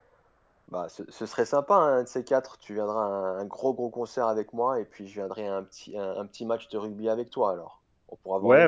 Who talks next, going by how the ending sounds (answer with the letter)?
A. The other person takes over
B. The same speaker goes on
A